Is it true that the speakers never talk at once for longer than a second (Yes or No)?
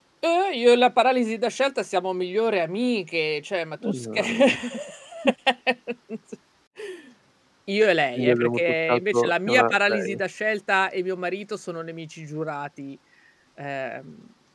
No